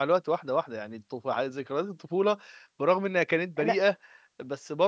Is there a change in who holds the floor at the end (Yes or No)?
No